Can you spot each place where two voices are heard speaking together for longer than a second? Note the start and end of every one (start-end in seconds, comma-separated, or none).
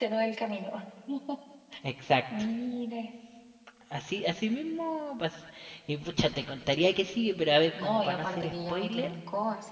7.8-9.1